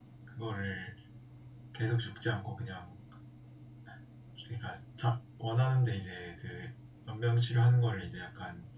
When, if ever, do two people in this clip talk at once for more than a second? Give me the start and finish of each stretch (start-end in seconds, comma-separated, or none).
none